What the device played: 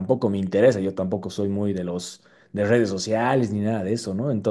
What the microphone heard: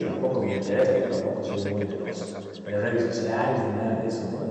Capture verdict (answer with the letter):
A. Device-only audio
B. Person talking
B